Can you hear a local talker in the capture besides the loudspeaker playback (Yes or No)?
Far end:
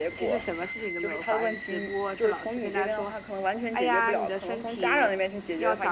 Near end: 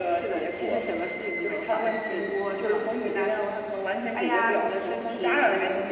No